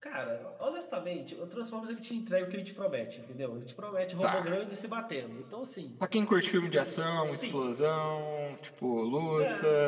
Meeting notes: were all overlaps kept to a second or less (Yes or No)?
Yes